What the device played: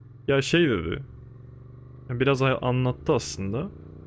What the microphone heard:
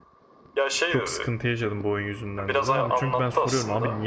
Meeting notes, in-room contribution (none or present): present